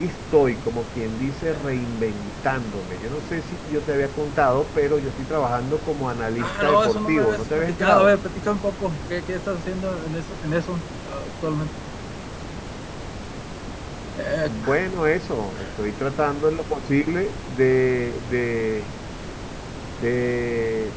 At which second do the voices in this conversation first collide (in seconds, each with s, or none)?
6.4 s